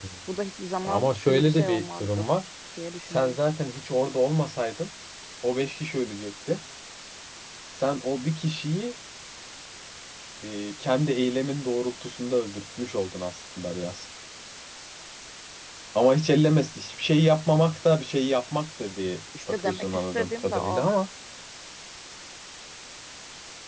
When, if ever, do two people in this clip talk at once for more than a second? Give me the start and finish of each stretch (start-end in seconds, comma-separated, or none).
0.8-2.2, 19.5-20.9